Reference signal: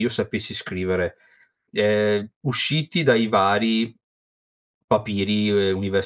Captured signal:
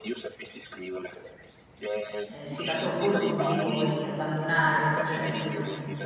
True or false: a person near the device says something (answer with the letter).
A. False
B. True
B